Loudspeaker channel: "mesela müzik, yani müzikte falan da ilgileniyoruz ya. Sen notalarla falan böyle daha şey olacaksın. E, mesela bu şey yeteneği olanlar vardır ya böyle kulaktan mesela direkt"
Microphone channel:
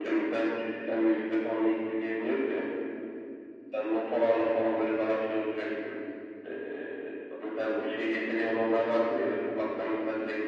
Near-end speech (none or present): none